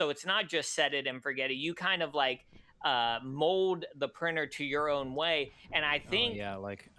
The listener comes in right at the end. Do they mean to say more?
Yes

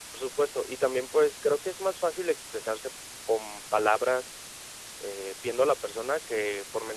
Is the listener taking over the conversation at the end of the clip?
No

